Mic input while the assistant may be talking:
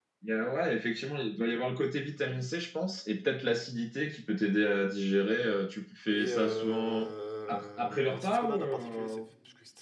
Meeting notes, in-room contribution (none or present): present